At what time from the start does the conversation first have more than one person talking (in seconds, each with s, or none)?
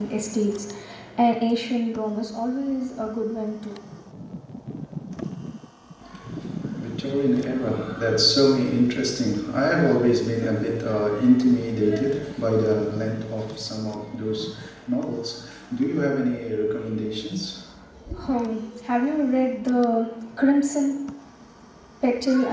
none